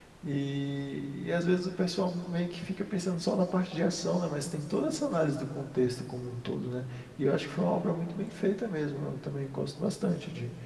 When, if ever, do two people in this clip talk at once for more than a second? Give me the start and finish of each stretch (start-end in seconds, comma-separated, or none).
none